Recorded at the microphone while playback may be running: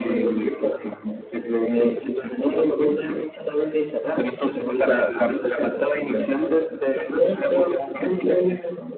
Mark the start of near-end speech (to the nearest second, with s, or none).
none